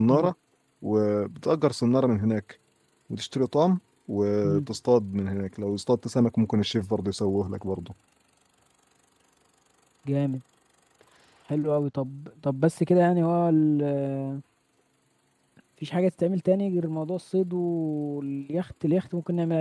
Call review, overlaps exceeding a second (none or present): none